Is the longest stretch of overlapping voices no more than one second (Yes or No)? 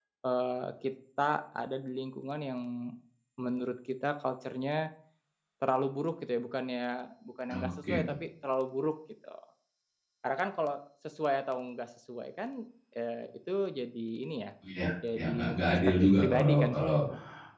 No